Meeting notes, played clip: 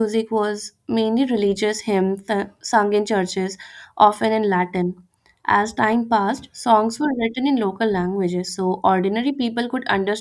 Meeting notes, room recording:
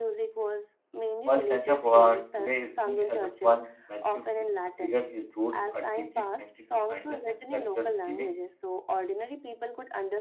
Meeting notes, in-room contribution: present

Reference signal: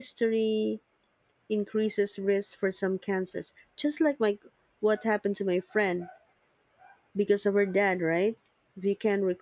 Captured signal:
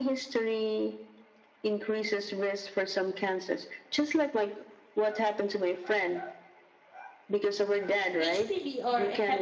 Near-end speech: present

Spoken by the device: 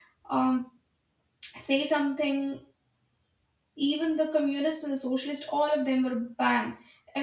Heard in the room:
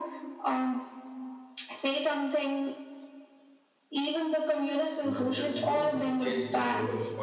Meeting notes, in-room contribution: present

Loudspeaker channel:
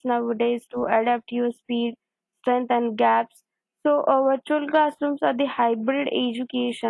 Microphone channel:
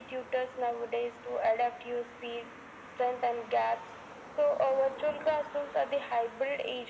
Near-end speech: none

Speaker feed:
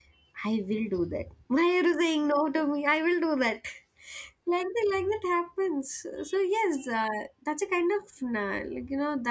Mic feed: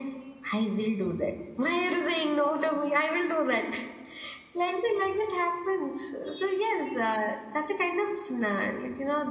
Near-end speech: none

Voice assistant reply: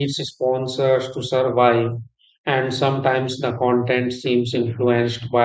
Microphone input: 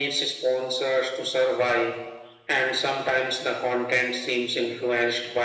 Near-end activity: none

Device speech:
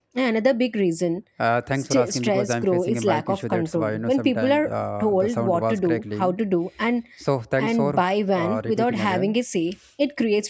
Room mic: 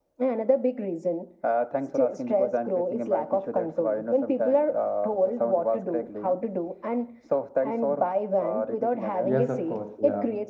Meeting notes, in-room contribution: present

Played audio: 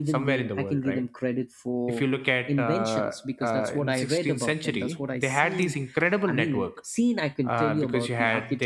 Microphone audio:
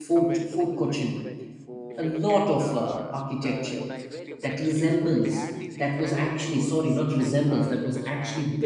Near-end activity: present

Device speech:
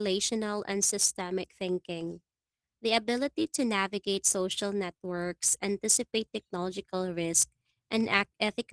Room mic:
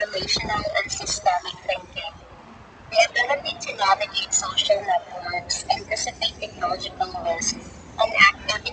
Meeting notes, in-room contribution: none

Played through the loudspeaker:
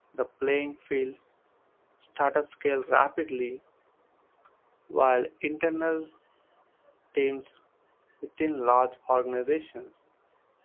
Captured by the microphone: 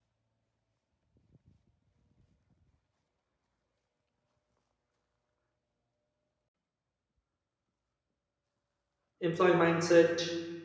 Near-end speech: present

